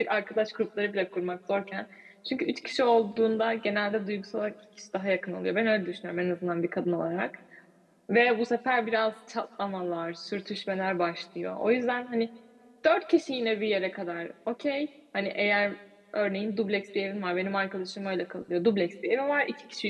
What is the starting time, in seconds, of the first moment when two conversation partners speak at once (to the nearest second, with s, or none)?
none